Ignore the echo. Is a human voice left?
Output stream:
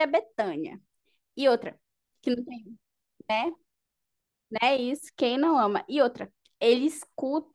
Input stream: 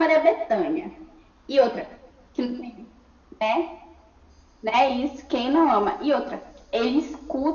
No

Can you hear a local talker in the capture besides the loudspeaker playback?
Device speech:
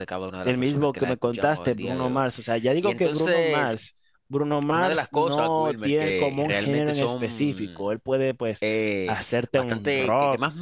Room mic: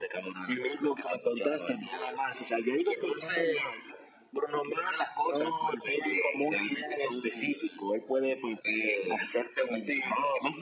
No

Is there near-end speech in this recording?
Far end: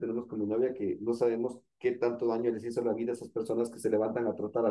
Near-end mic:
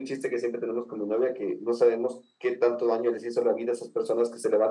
No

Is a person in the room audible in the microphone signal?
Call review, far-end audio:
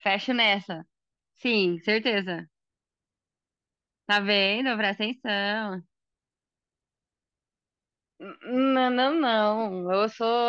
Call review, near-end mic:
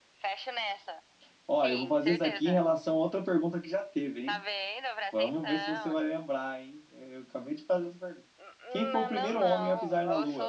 Yes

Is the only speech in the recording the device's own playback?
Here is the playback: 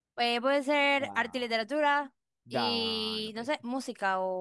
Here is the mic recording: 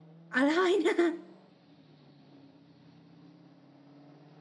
No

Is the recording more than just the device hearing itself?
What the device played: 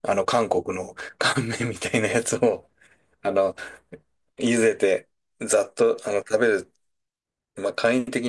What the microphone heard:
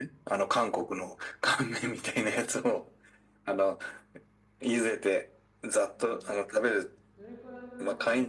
Yes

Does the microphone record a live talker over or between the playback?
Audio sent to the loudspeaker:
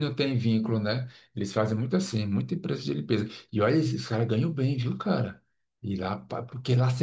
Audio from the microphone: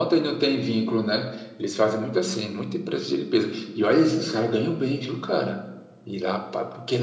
No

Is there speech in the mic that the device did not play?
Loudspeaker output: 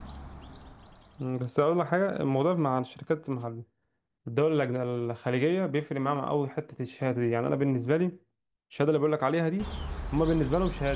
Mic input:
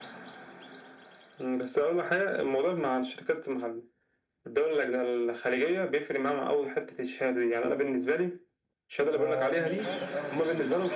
Yes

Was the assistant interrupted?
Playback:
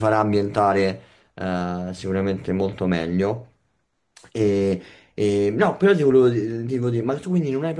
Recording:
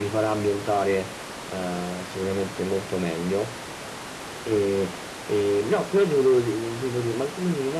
No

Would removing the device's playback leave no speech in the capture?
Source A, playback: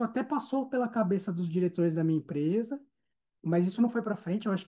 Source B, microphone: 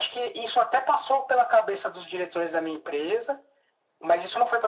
Yes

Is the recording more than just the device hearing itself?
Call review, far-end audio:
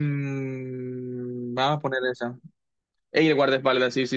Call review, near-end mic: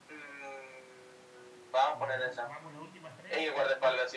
Yes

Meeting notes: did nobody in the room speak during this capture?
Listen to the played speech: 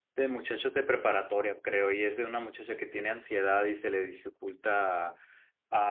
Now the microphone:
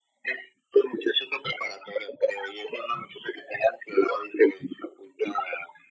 Yes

